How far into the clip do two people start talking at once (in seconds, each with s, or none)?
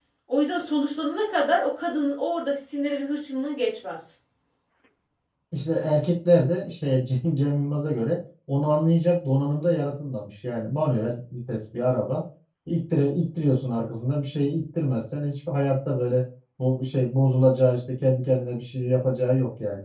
none